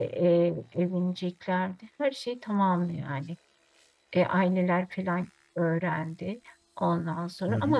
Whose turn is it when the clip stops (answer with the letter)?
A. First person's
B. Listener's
A